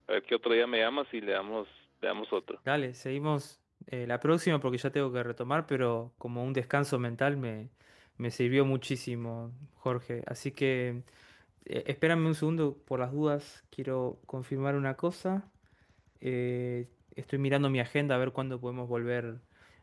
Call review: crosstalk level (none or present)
none